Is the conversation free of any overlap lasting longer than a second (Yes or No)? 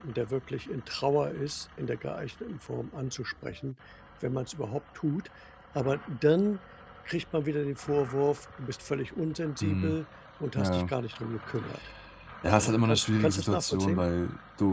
No